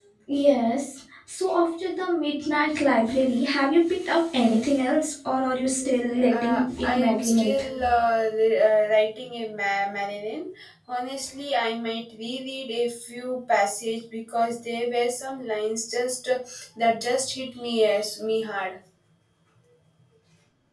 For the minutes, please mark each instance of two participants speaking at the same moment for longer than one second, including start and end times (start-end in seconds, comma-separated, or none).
6.3-7.9